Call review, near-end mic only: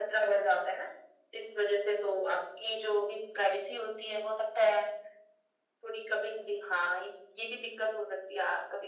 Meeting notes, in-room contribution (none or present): none